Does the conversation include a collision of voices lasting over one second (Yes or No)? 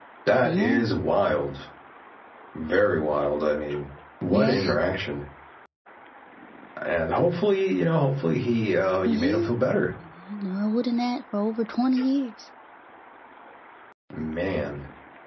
No